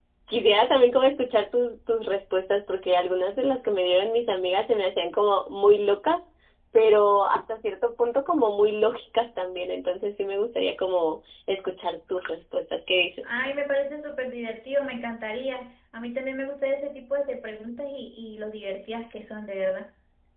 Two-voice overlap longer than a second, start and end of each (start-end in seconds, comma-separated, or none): none